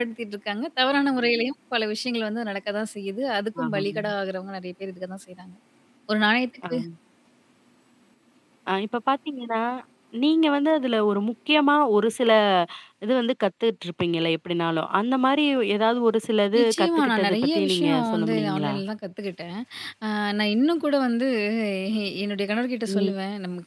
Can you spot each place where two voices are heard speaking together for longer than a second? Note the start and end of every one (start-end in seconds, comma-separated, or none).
16.6-18.8